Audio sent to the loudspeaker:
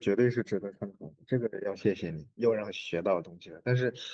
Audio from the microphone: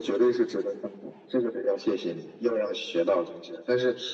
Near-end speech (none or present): none